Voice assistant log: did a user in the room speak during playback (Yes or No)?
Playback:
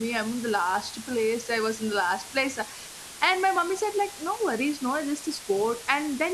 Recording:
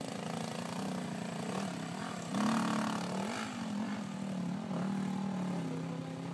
No